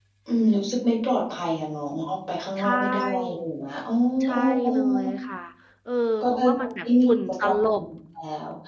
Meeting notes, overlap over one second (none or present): present